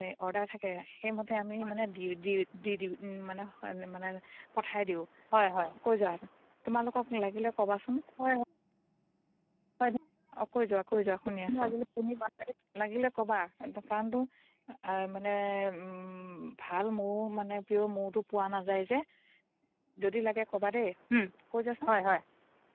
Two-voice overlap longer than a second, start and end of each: none

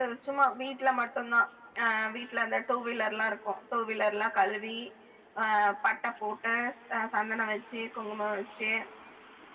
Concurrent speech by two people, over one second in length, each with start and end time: none

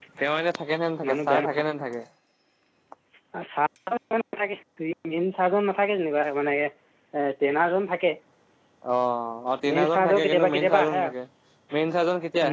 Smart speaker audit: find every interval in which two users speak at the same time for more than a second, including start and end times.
9.7-11.1

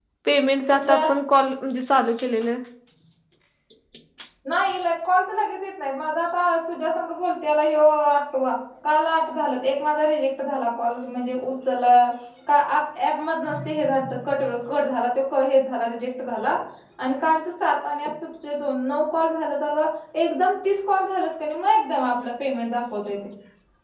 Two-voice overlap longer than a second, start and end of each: none

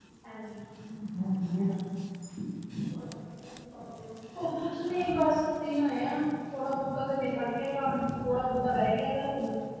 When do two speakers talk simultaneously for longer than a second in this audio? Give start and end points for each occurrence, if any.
none

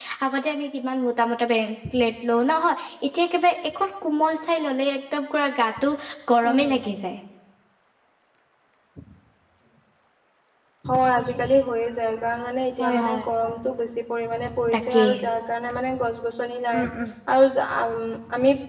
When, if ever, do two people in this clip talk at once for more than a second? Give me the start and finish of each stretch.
none

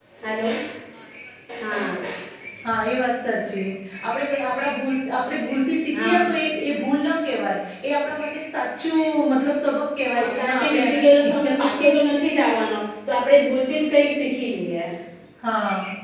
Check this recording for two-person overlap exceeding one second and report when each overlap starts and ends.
10.1-11.9

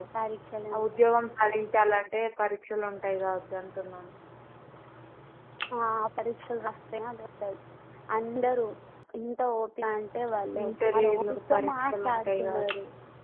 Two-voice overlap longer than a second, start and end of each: 10.6-12.6

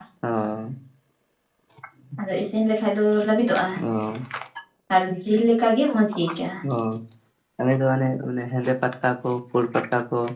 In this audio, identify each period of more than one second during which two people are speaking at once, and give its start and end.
none

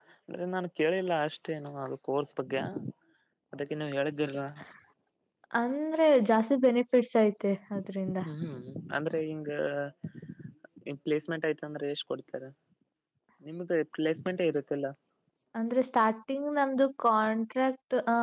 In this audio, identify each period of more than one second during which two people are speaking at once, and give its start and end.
none

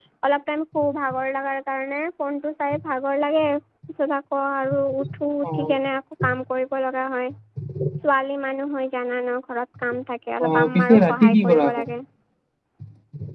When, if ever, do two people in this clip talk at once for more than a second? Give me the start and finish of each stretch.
10.4-11.9

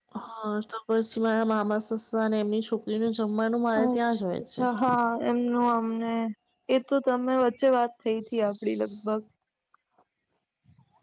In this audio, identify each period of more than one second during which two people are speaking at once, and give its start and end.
none

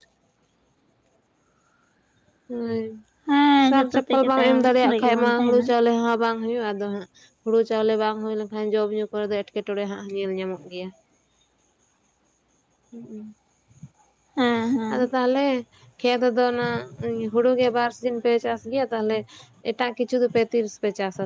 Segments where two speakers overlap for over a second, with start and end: 3.7-5.7

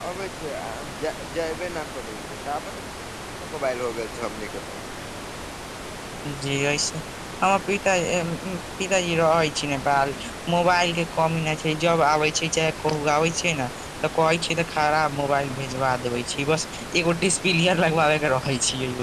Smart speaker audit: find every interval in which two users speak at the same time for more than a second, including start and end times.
none

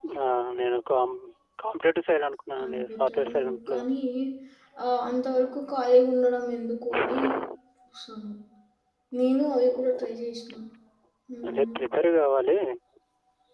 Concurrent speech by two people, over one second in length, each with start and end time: 2.6-3.9

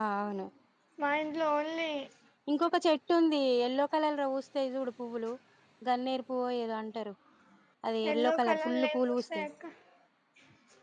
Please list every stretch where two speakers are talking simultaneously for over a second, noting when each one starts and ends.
8.1-9.5

